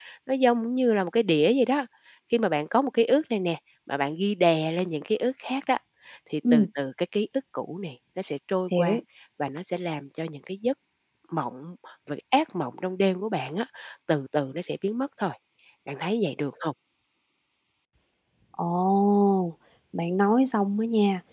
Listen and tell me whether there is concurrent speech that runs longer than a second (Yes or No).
No